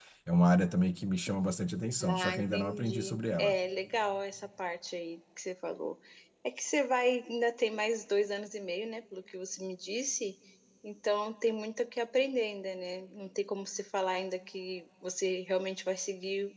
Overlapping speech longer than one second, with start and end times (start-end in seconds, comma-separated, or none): 2.0-3.6